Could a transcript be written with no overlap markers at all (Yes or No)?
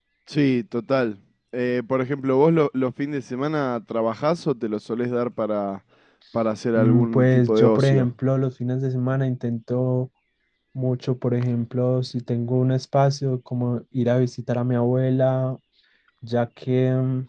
No